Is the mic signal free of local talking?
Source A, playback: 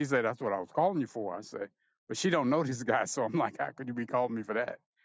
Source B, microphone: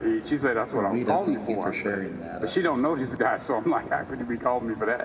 No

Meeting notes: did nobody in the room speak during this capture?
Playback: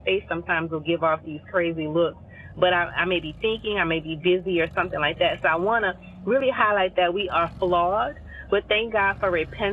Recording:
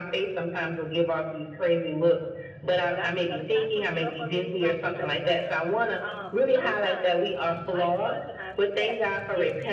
No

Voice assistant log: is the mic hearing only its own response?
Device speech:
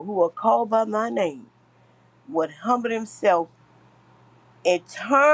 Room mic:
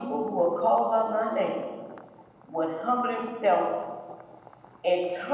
Yes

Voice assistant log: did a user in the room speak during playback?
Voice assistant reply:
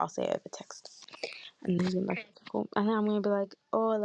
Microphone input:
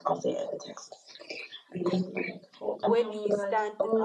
Yes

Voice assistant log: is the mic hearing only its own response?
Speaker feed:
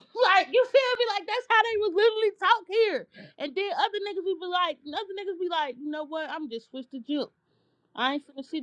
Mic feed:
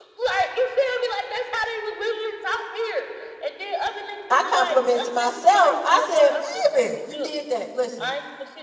No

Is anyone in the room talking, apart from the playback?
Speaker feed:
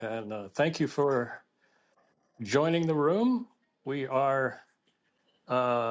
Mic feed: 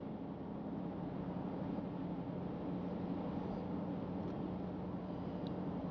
No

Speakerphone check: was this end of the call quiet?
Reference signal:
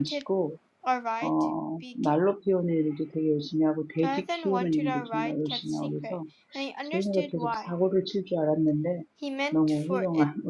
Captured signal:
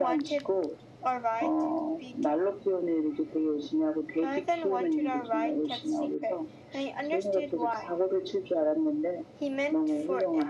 Yes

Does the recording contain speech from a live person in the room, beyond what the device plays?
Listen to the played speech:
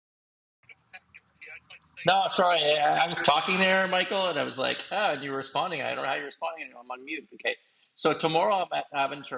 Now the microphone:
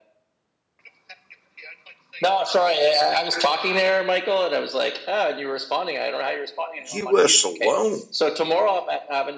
Yes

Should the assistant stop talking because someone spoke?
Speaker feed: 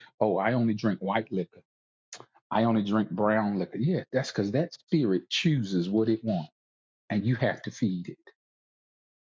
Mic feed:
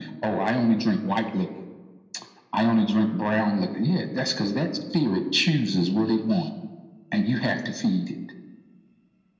No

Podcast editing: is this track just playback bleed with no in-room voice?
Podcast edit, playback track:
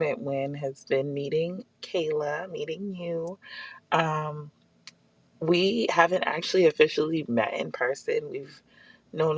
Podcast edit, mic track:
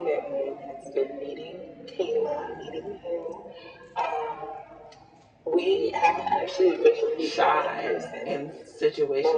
No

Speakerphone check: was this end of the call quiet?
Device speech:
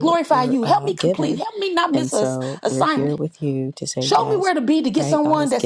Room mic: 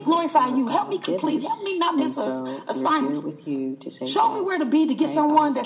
Yes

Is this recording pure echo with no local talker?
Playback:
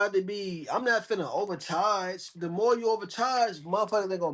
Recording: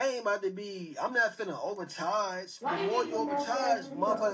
No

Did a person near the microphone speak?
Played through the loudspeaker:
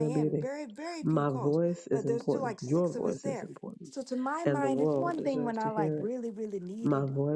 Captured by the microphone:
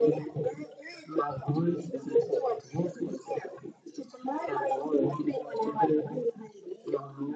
No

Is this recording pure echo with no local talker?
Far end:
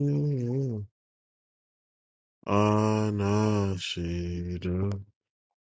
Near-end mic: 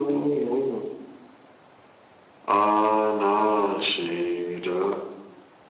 Yes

